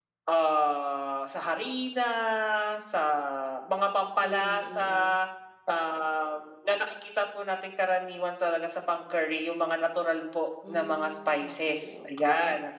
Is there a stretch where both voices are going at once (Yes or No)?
Yes